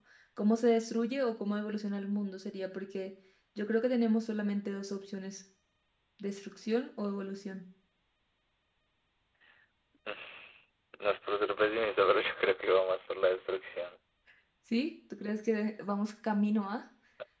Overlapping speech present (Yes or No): No